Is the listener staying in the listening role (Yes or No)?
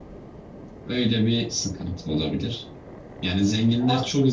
Yes